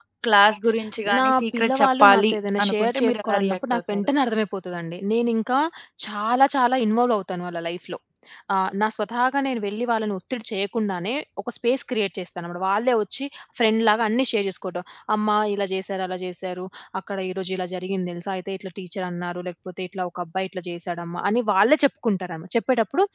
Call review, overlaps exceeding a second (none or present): present